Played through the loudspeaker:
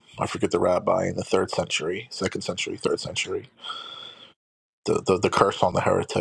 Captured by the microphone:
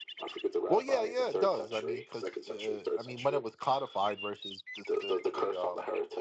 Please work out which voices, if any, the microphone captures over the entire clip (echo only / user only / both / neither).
both